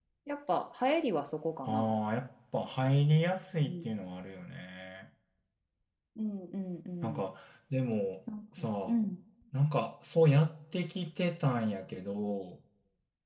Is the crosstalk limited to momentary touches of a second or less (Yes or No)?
Yes